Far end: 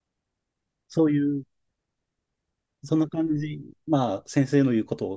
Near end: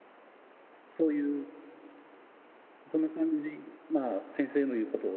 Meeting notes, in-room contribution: none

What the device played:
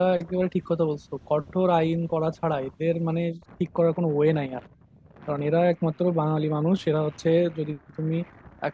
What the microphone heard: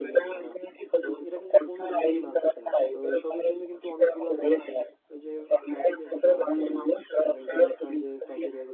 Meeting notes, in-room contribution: present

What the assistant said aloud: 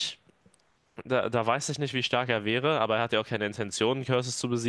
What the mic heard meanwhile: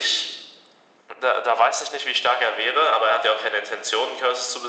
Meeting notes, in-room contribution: none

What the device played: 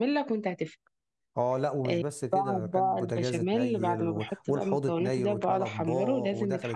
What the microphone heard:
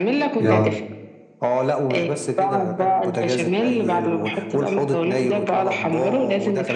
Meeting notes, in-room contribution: present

